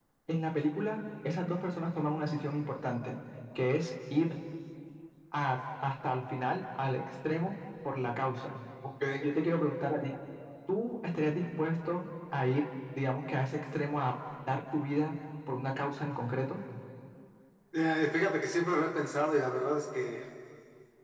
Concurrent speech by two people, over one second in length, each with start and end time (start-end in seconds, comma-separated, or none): none